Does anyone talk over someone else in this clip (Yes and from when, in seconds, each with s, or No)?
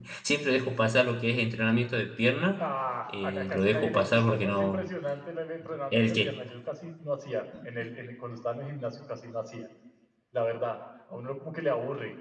Yes, from 3.1 s